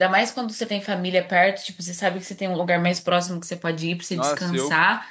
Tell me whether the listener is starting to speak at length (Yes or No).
Yes